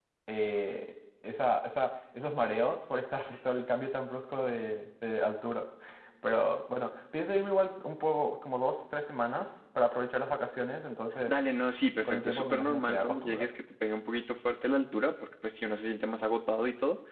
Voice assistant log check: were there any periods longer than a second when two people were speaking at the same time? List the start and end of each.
12.0-13.5

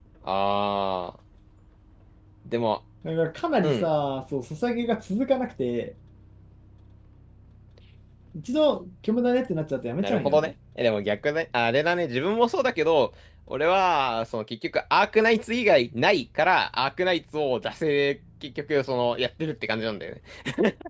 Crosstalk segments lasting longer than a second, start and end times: none

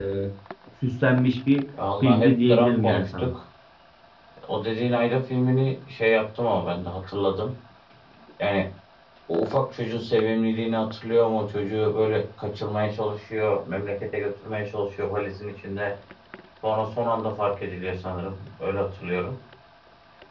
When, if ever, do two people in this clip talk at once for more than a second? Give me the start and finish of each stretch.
2.0-3.3

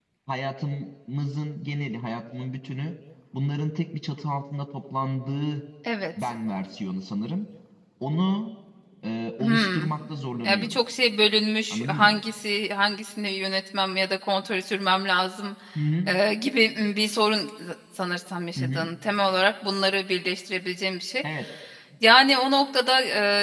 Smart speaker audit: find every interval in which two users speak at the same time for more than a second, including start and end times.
none

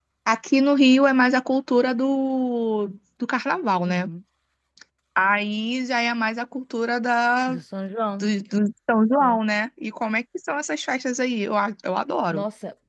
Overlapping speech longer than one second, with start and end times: none

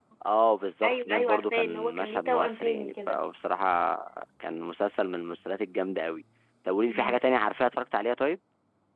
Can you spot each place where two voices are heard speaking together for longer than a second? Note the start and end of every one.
0.8-3.2

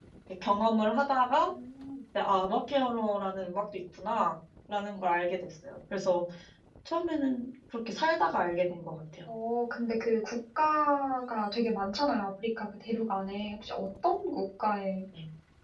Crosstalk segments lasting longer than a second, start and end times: none

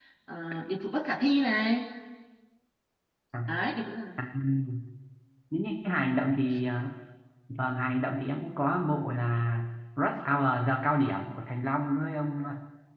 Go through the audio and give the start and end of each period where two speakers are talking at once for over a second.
none

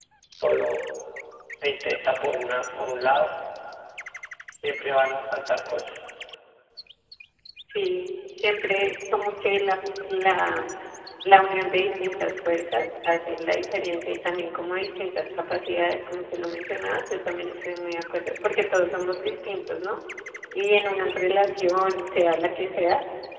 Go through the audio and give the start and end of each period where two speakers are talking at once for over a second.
none

